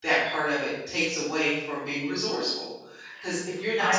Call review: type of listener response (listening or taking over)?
listening